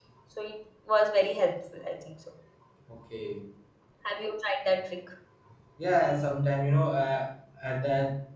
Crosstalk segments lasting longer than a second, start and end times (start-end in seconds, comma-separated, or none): none